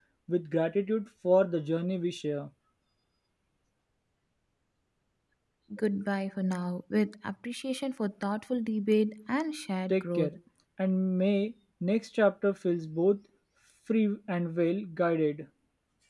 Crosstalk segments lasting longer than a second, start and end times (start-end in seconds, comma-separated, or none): none